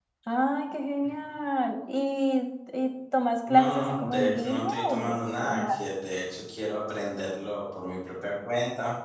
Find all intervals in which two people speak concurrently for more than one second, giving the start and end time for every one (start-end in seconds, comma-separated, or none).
3.5-5.8